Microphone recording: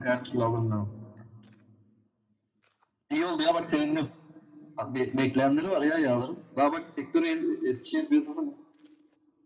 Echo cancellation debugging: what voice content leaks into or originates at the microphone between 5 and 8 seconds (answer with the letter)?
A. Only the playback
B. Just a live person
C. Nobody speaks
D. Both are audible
A